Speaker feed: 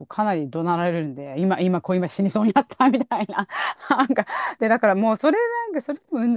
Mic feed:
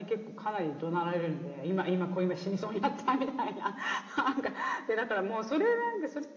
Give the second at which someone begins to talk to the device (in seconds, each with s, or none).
none